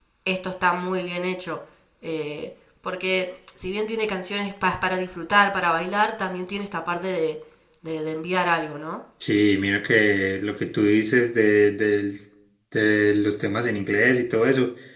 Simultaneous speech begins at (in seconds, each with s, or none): none